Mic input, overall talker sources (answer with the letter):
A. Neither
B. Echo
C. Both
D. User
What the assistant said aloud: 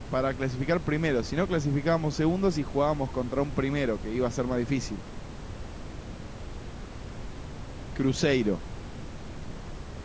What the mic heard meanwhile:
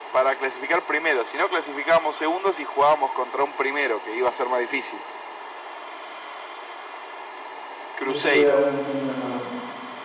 C